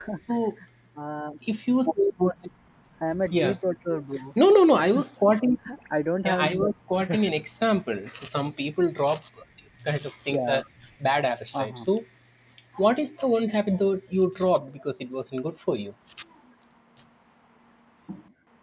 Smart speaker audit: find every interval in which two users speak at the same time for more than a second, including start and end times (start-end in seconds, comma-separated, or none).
none